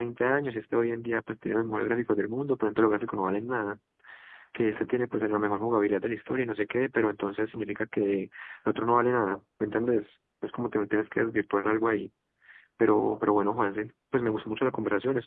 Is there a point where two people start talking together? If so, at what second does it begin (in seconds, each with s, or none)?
none